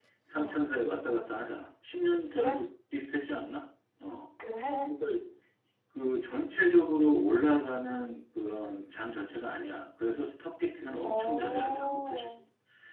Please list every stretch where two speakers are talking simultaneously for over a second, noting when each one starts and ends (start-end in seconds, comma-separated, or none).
11.1-12.4